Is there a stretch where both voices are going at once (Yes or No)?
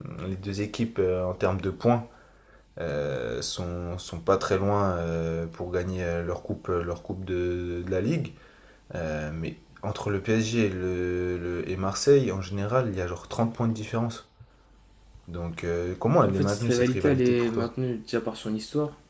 Yes